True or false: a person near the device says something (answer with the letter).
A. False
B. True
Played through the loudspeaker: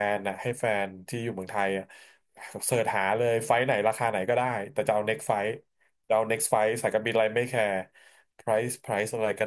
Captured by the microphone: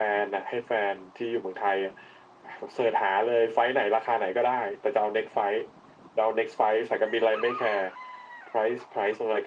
A